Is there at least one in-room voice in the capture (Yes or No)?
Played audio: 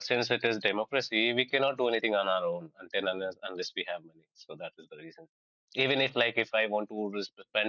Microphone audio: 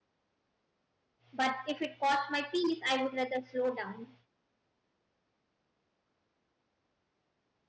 Yes